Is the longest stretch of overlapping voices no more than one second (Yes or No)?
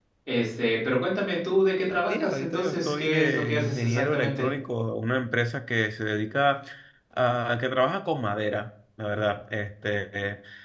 No